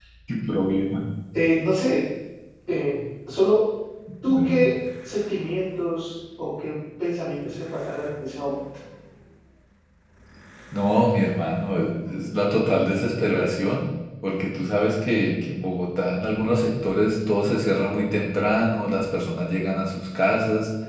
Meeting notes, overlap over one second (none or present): none